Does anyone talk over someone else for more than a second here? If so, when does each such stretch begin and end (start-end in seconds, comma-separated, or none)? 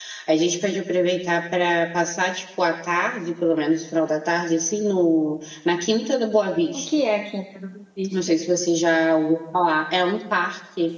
none